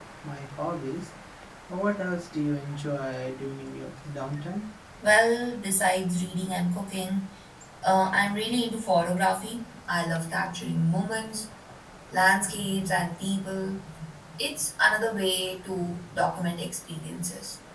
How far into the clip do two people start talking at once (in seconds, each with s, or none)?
none